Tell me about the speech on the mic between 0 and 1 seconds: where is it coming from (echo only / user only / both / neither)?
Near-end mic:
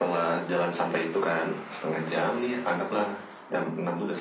echo only